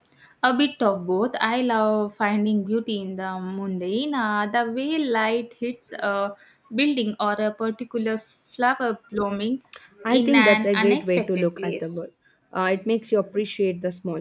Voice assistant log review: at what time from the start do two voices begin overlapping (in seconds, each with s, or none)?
10.1 s